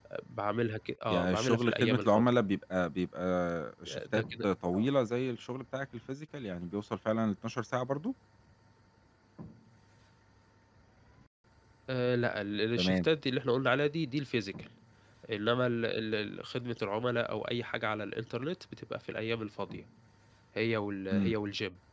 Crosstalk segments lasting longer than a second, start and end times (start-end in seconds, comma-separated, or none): 1.1-2.3